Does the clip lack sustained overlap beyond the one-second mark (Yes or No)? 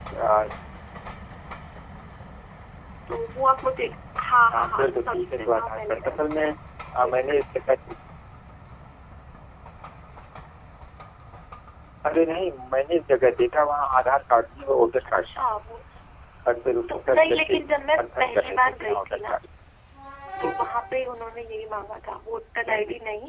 No